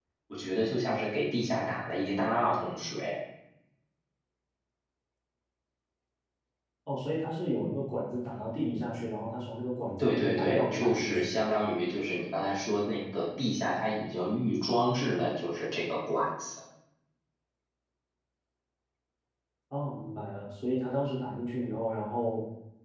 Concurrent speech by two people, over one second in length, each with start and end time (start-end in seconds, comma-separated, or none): 10.0-11.3